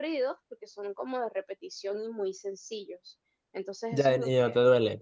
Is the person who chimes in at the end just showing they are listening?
No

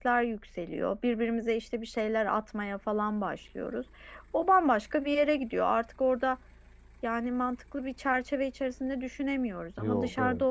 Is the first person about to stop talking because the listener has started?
No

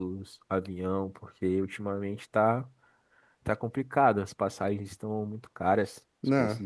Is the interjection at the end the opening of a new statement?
Yes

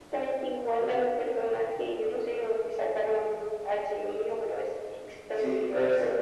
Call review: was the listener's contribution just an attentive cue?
No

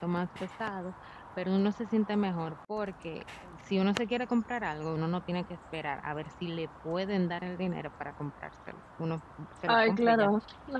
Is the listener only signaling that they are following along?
No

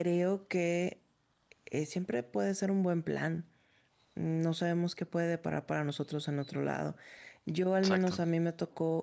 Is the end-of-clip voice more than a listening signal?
No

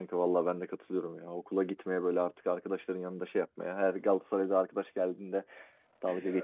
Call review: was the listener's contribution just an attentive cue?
Yes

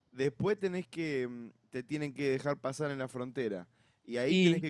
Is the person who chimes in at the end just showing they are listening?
Yes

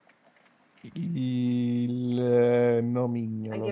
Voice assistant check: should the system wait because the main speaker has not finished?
No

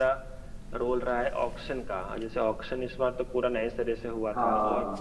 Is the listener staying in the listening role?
Yes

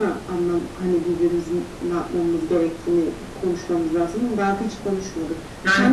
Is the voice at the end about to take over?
Yes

